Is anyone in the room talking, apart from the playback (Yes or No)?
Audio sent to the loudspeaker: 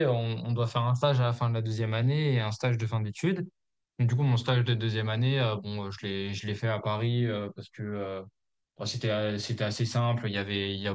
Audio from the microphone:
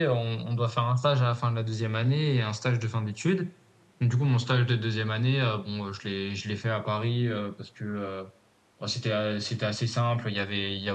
No